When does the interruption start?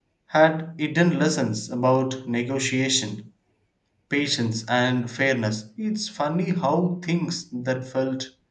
none

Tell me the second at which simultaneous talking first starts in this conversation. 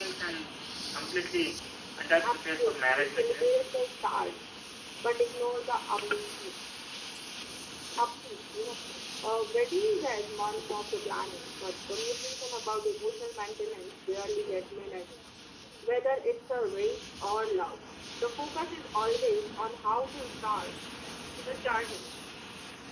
2.2 s

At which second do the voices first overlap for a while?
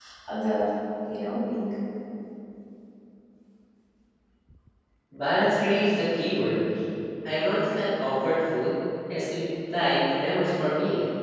none

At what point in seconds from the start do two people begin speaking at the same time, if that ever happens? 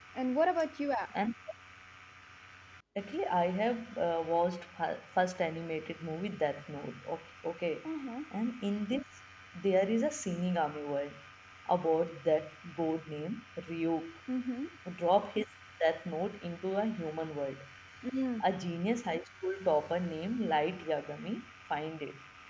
none

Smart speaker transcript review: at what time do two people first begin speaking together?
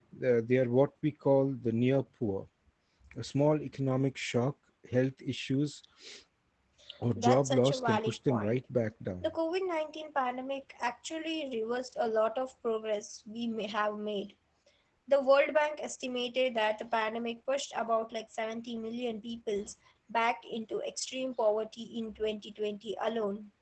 7.2 s

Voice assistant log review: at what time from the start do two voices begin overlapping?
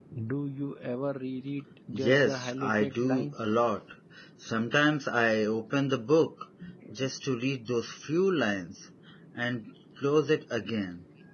1.9 s

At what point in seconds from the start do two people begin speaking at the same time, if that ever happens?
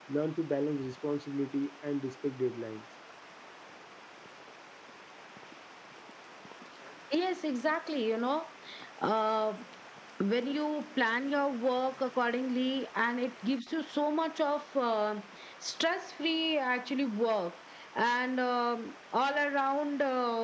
none

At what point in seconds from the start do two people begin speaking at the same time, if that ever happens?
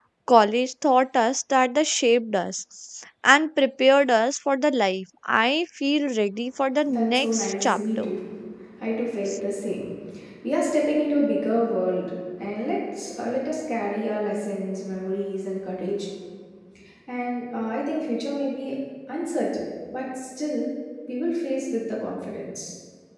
6.8 s

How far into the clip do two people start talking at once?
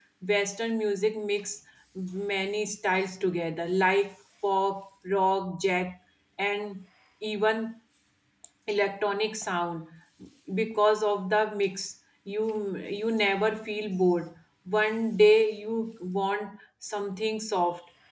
none

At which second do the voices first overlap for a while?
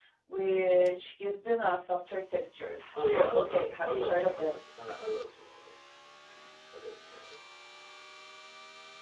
3.0 s

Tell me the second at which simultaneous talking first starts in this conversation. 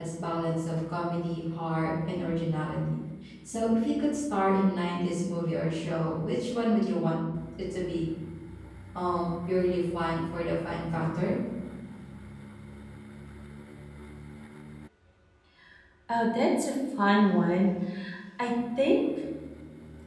none

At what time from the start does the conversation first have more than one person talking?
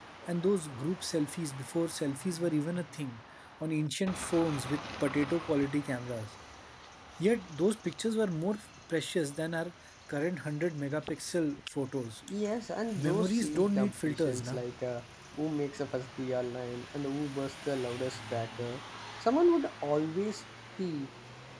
12.9 s

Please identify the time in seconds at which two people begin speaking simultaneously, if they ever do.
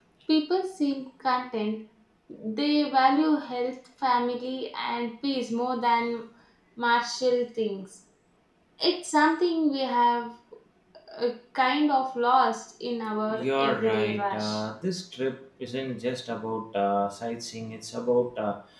13.3 s

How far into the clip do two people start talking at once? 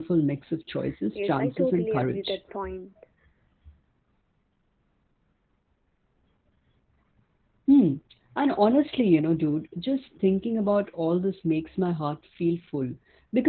1.1 s

